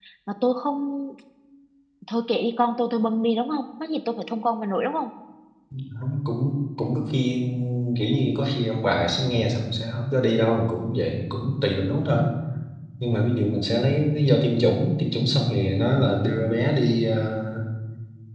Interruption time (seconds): none

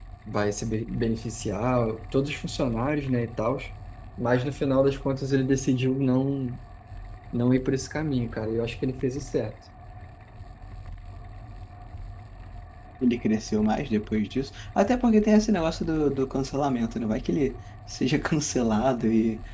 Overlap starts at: none

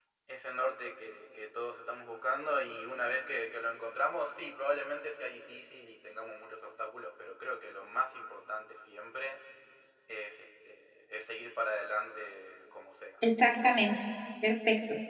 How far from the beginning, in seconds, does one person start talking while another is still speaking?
none

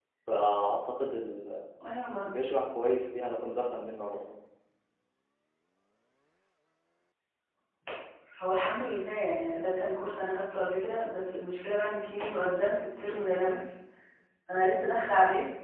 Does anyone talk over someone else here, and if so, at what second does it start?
none

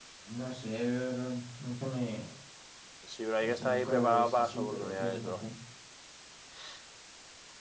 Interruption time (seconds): 3.4 s

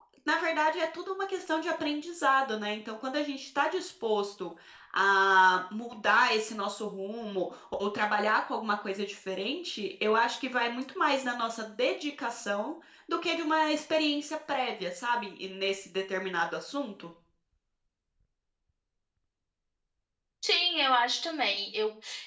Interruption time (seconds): none

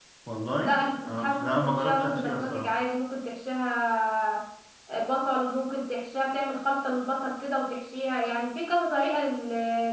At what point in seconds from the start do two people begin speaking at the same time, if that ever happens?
0.6 s

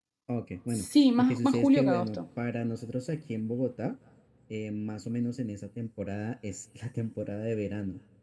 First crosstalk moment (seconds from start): 0.7 s

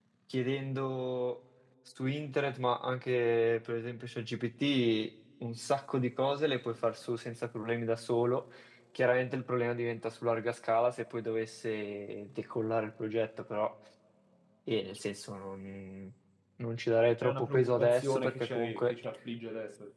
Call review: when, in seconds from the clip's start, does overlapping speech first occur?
17.2 s

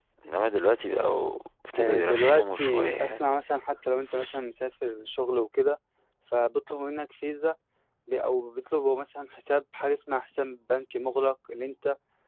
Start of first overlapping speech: 1.7 s

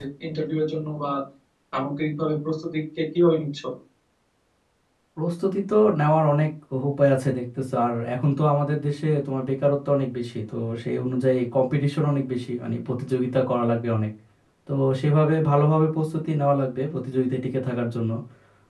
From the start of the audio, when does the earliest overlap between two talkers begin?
none

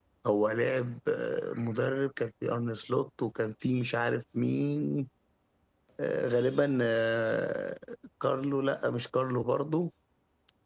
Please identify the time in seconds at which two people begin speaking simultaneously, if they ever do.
none

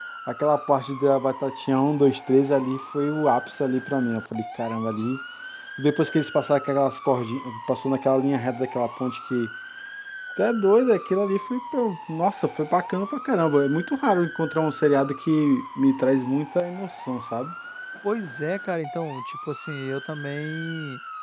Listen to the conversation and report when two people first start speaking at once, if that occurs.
none

